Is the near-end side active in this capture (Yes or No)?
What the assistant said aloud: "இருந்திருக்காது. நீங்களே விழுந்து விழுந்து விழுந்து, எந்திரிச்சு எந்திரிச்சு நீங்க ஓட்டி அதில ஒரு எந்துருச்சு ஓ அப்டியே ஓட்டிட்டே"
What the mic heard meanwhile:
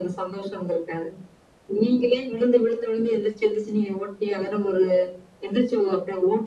No